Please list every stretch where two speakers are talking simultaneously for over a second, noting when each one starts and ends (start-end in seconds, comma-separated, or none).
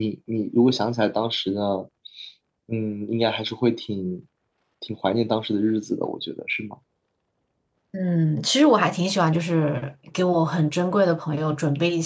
none